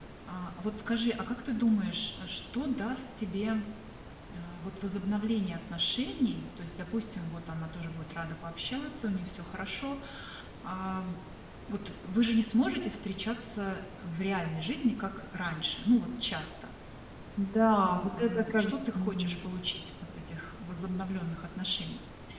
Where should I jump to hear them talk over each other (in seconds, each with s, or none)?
17.8 s